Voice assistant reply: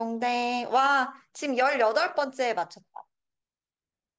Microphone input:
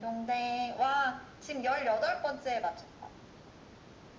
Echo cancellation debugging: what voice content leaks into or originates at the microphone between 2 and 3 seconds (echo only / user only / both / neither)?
echo only